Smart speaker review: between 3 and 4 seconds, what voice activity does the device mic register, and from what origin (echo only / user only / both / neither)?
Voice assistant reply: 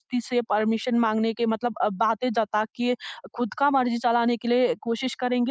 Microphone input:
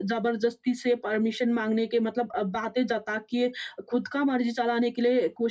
echo only